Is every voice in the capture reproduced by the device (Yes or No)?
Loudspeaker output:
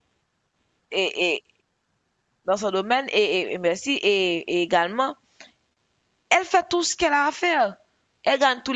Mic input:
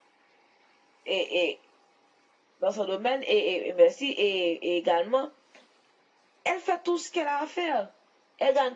Yes